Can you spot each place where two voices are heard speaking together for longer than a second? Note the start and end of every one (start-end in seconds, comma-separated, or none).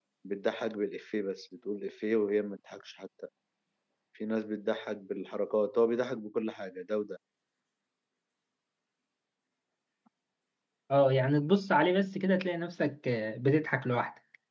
none